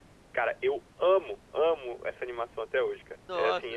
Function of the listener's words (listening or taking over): listening